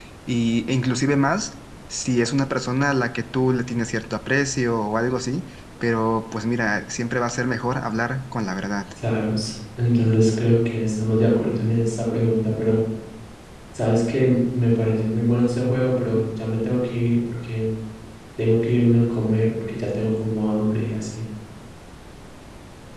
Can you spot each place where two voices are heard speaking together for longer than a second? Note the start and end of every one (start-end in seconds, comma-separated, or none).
none